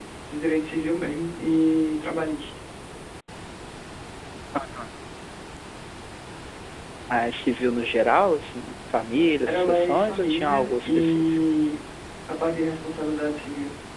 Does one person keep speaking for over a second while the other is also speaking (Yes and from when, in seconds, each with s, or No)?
Yes, from 9.5 s